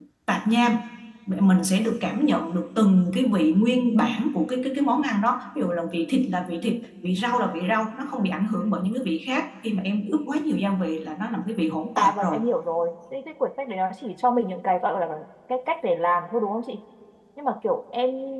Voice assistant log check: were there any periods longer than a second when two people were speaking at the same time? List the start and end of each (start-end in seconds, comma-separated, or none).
none